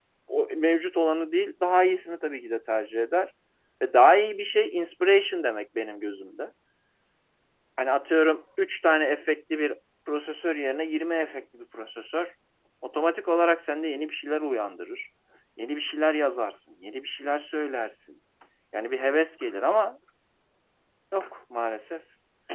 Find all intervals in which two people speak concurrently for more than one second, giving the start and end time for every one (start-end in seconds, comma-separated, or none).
none